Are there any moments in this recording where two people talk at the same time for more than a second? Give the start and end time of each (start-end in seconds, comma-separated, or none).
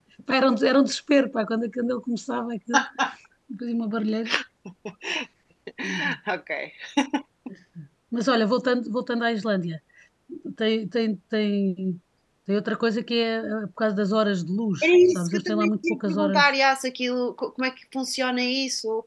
14.8-16.5